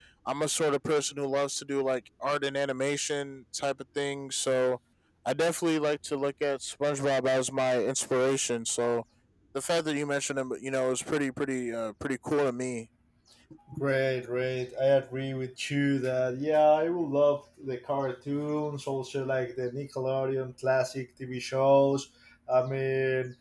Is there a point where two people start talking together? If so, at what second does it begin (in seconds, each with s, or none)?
none